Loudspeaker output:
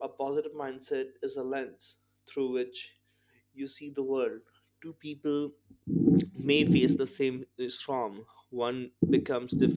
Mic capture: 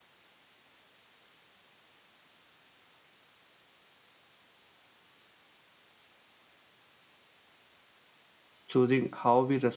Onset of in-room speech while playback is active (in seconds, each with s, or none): 8.7 s